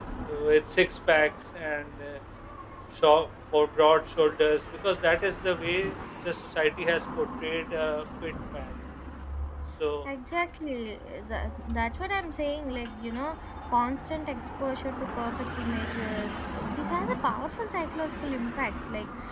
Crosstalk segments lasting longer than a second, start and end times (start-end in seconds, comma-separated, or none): none